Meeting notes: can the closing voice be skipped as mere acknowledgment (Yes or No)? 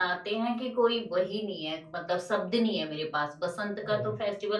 Yes